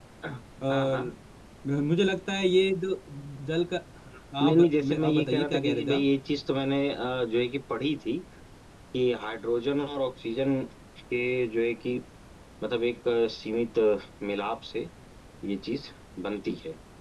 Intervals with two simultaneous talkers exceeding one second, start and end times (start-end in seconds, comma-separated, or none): 4.5-6.0